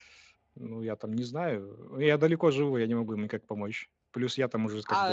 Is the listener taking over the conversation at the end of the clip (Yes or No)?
Yes